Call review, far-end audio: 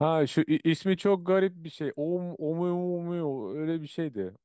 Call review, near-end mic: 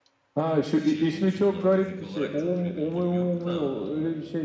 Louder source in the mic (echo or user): echo